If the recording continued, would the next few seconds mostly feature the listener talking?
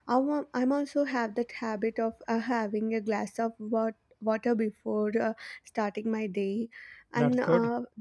No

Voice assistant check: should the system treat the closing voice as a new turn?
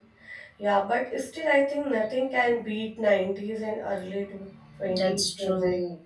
Yes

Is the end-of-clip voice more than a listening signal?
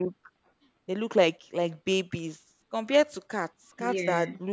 No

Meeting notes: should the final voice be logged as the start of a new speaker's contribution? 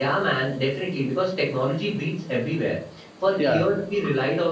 No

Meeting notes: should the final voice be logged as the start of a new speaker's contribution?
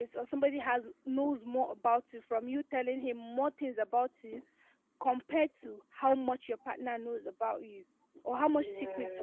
No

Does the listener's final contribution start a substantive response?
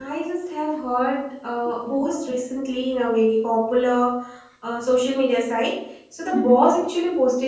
No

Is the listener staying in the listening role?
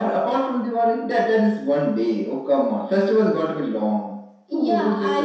No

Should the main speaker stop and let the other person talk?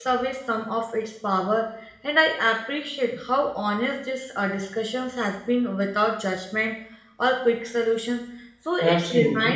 Yes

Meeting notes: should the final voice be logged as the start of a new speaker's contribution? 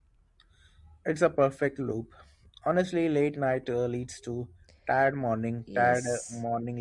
Yes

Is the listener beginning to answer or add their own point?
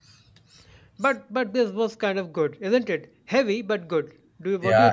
Yes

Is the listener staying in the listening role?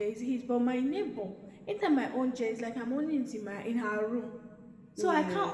Yes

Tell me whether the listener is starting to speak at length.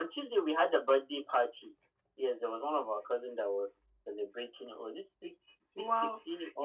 Yes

